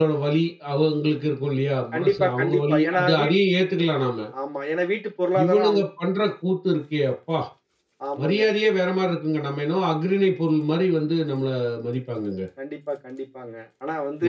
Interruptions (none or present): present